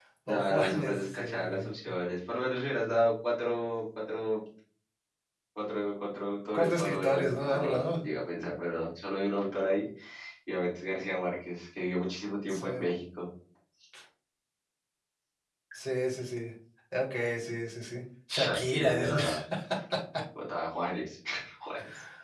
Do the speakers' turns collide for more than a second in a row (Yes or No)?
Yes